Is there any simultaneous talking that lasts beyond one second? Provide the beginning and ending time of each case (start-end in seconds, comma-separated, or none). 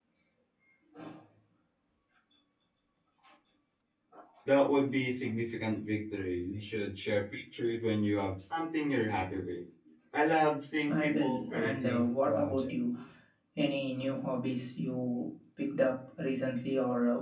10.9-12.7